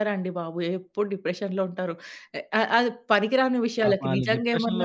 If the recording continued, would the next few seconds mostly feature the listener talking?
Yes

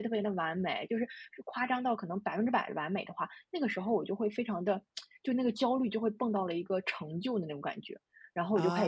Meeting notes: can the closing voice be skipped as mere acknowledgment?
Yes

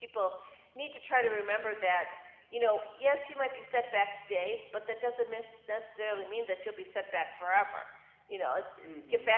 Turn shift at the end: No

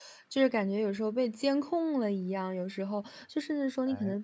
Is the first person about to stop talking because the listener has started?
No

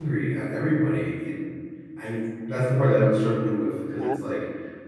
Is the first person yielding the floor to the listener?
No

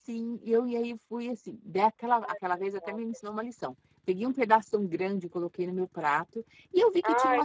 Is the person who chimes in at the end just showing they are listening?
Yes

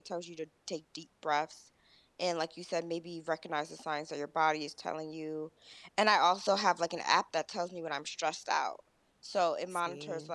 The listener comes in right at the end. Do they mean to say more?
No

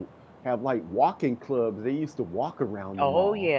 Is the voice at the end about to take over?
Yes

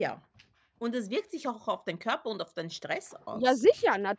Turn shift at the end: Yes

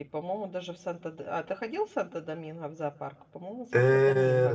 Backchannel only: No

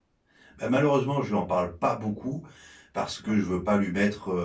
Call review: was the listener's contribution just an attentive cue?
Yes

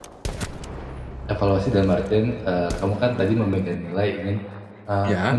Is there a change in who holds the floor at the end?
No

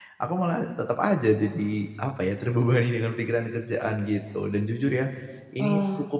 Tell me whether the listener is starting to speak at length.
No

